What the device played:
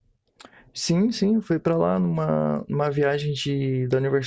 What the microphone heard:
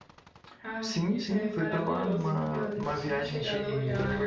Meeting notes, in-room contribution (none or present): present